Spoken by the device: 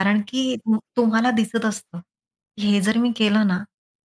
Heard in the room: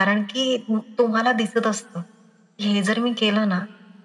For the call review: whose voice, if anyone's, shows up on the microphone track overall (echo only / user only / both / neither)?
echo only